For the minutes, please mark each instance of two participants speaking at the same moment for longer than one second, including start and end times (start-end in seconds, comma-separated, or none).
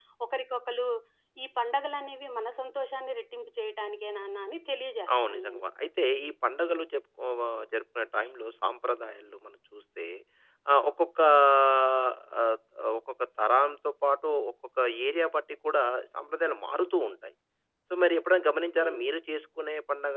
none